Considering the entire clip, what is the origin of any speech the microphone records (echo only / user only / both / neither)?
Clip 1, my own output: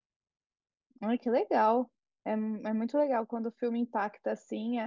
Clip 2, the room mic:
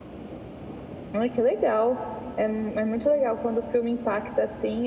echo only